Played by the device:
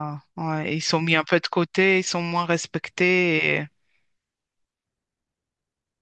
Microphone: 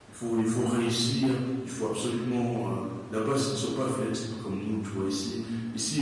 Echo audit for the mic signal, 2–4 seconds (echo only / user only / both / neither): user only